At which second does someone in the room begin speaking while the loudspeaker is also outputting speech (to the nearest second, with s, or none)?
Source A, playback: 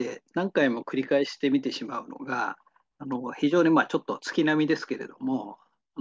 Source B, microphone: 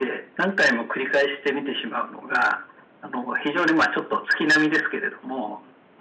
none